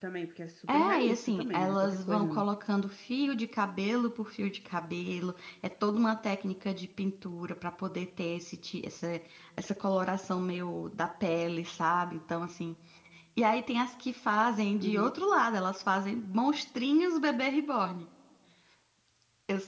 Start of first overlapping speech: 0.7 s

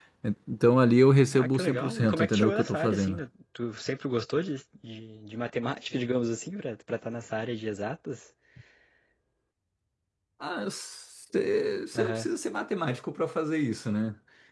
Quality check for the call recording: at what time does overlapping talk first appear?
1.3 s

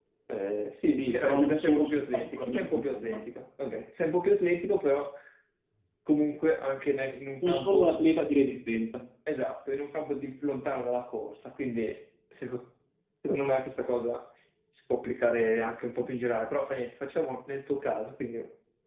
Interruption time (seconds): 0.9 s

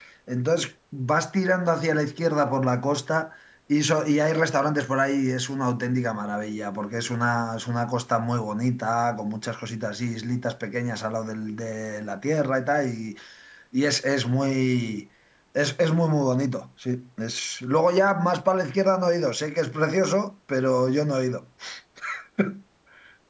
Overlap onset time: none

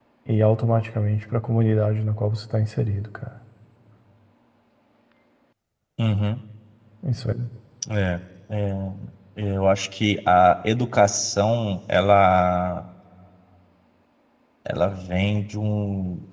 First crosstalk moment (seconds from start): none

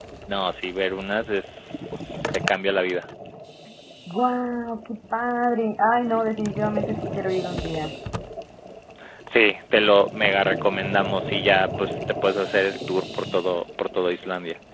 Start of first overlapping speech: none

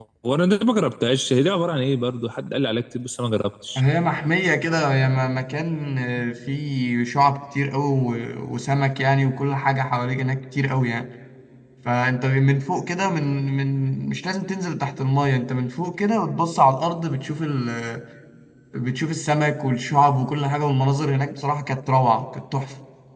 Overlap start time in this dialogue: none

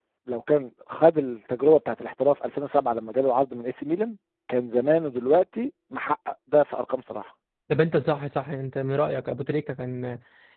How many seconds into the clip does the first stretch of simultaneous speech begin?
none

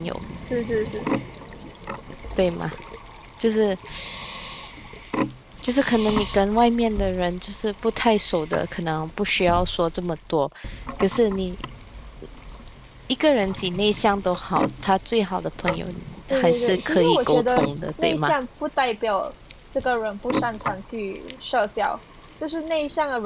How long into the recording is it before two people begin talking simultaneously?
16.3 s

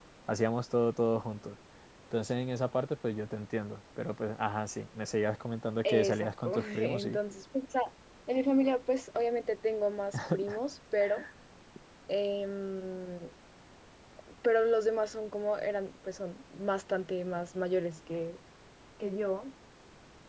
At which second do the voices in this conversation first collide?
5.8 s

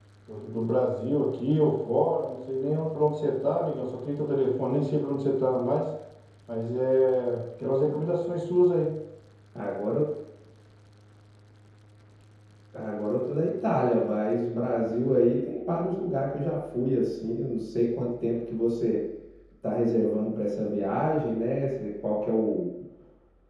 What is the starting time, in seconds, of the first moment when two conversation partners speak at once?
none

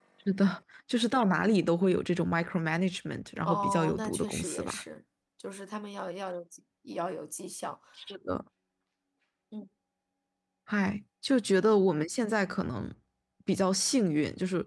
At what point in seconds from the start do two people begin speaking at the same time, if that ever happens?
3.4 s

